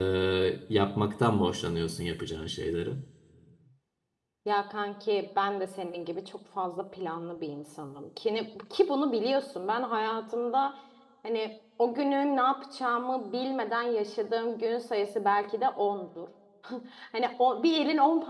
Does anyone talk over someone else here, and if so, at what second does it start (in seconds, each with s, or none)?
none